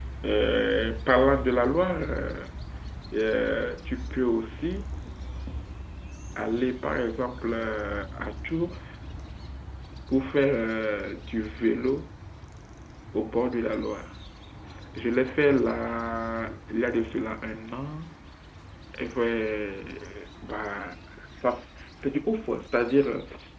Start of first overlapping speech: none

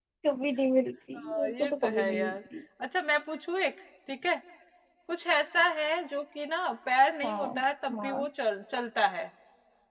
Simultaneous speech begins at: 1.2 s

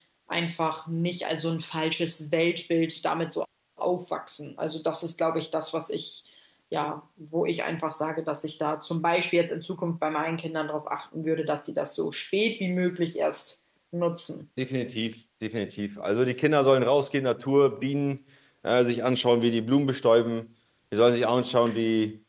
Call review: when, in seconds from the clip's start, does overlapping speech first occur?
none

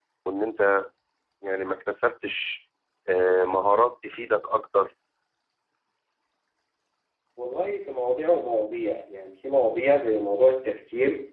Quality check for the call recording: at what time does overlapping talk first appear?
none

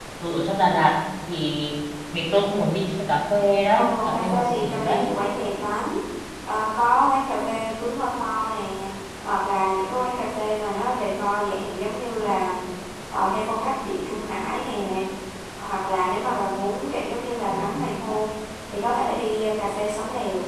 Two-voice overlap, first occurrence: 3.8 s

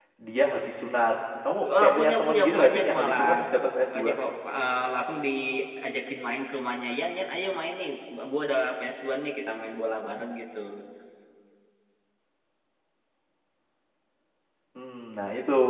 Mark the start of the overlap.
1.6 s

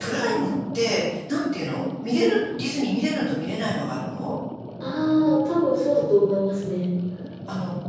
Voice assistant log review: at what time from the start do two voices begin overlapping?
none

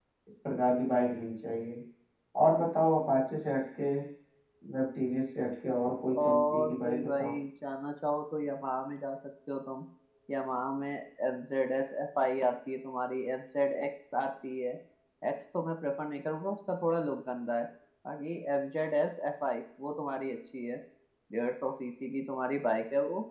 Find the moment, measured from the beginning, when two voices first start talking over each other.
6.1 s

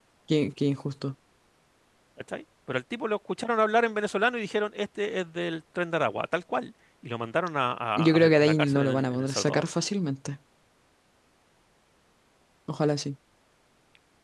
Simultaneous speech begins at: 8.0 s

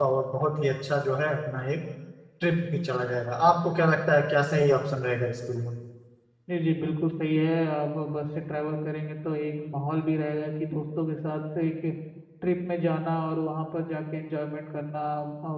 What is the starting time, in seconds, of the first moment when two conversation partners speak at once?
none

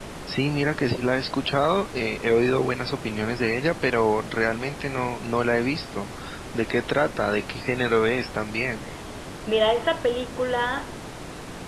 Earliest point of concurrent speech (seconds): none

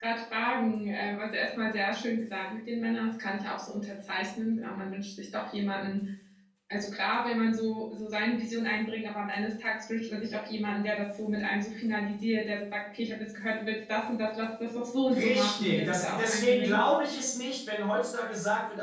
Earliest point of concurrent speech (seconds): 15.1 s

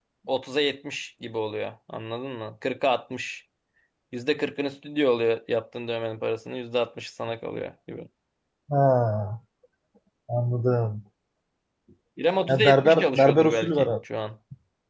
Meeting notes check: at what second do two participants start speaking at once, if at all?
12.5 s

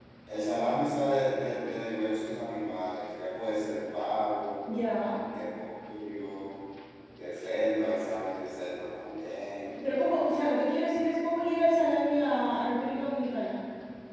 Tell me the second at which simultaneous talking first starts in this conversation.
none

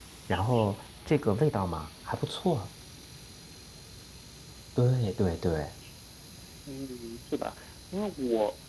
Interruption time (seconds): none

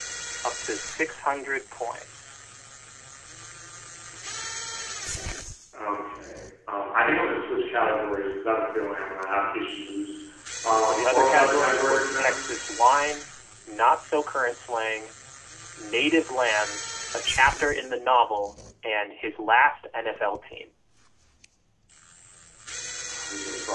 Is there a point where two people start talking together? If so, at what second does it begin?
10.8 s

